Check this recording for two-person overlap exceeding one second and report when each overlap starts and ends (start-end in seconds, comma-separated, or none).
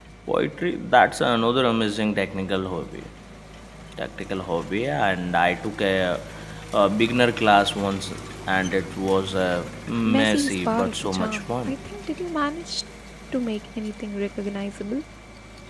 10.0-11.7